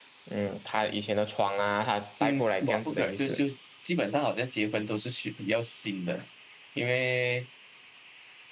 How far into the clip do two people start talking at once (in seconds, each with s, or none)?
2.2 s